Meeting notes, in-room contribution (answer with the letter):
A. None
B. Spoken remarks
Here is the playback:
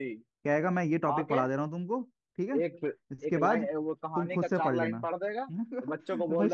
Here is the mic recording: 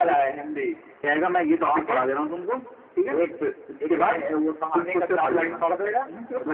A